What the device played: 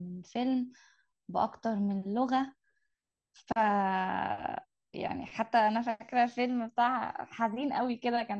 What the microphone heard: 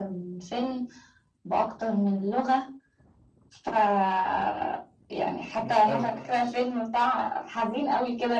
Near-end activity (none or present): present